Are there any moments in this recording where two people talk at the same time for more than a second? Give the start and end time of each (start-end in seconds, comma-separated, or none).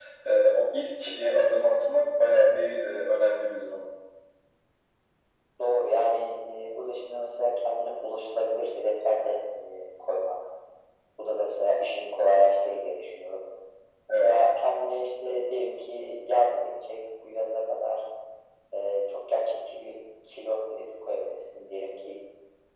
none